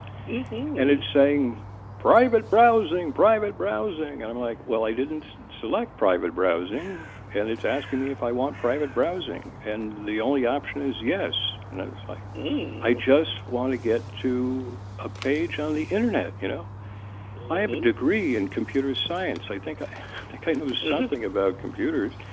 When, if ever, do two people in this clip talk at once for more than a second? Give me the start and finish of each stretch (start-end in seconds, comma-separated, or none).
none